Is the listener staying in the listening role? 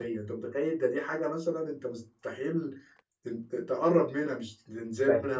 No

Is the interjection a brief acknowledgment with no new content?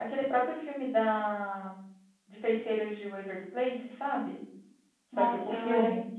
No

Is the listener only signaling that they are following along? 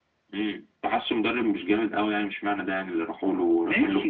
No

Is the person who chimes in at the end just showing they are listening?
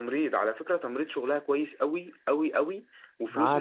Yes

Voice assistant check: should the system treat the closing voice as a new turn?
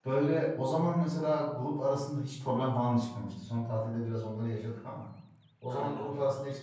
No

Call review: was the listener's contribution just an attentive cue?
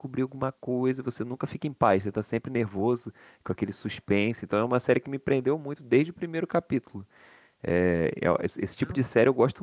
Yes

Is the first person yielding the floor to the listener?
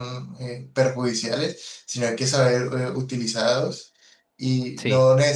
No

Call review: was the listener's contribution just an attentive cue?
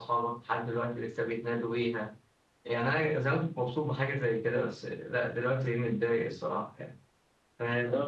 No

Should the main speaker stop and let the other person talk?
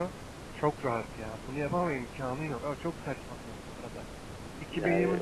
No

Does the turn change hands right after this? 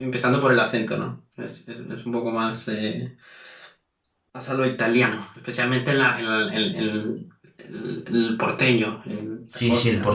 Yes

